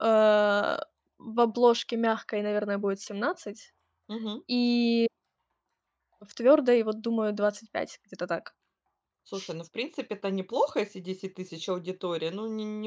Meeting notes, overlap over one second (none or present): none